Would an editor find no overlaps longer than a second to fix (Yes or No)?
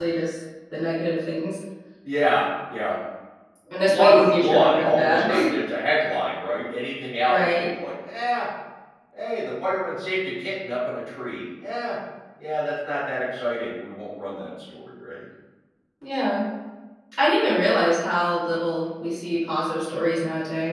No